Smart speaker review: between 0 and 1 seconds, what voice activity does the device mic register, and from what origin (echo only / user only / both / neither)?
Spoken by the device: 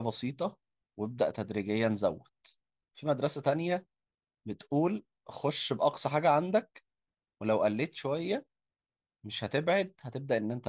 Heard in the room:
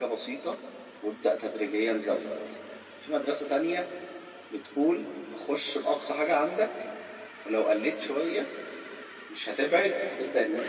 echo only